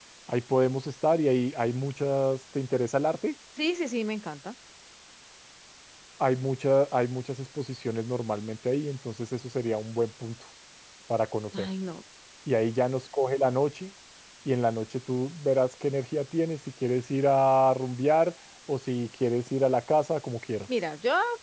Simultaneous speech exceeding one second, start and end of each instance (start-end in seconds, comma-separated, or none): none